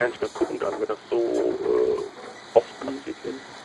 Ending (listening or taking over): taking over